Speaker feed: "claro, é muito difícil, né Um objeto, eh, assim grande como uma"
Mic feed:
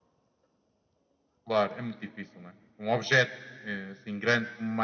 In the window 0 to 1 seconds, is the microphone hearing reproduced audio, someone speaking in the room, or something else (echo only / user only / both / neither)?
neither